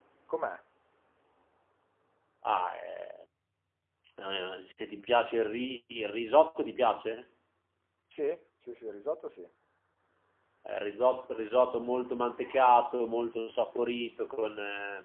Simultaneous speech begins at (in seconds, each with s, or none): none